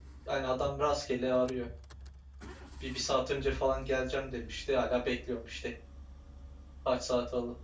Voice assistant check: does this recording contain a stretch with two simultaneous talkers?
No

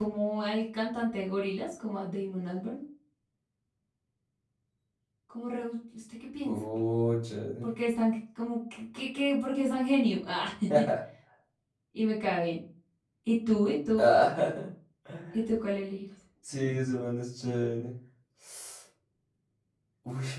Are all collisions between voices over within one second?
Yes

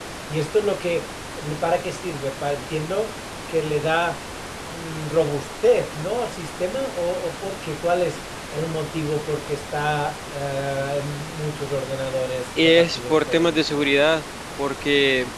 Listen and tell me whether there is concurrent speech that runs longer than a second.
Yes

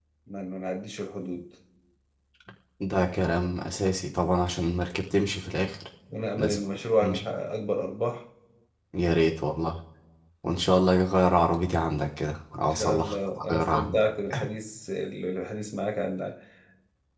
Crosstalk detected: Yes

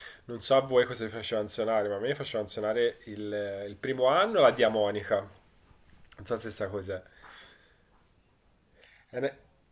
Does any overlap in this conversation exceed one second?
No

